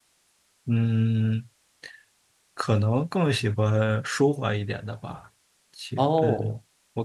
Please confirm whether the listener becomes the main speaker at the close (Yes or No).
No